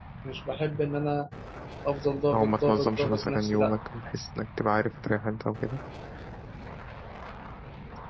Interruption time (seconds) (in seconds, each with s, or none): 2.3 s